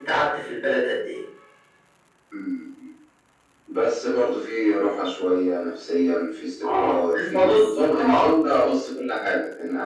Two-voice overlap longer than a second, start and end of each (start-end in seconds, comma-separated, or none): 6.7-8.3